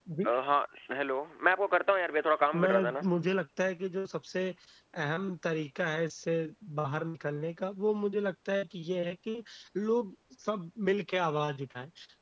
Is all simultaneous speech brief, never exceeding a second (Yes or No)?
Yes